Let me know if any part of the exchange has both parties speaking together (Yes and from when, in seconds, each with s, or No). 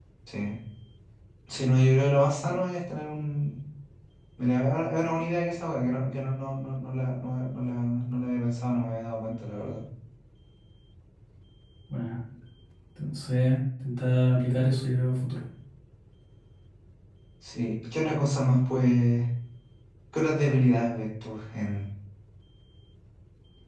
No